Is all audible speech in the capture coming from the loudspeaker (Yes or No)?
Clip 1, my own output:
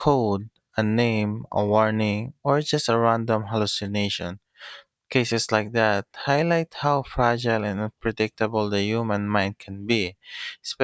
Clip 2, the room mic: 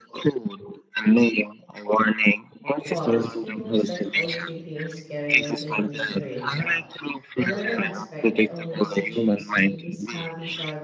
No